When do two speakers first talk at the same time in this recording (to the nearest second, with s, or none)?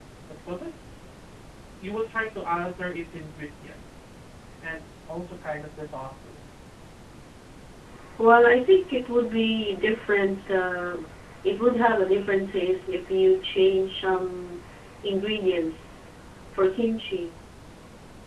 none